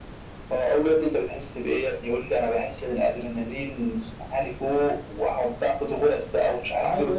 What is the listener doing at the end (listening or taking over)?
taking over